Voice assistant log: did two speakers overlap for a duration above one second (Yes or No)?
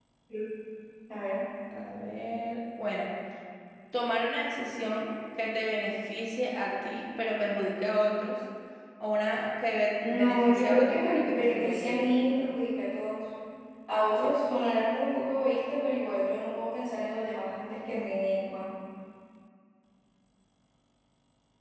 Yes